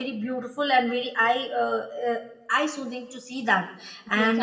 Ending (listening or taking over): taking over